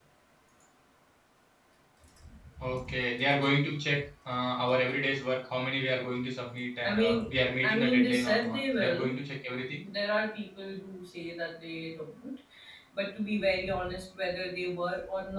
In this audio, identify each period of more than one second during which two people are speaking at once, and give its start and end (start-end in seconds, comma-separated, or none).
6.8-9.1